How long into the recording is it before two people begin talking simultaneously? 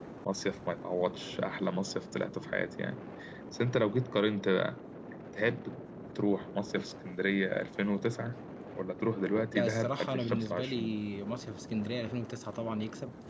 10 s

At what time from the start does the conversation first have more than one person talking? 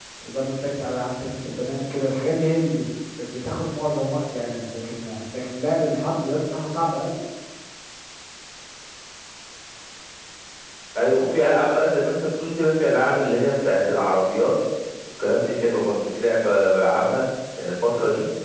none

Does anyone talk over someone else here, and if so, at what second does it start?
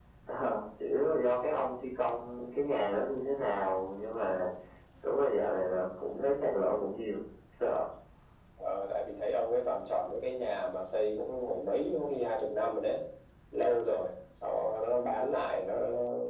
none

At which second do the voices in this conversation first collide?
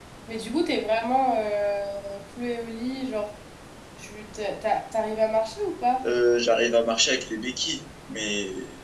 none

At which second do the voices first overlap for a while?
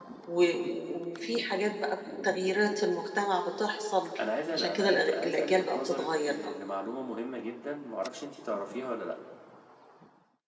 5 s

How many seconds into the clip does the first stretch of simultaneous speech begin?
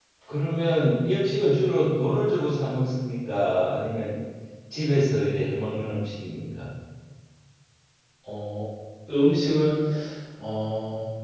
none

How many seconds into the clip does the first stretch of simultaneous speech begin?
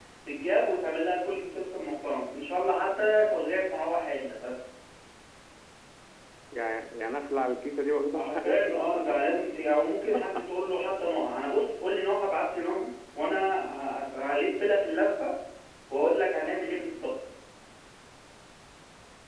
8 s

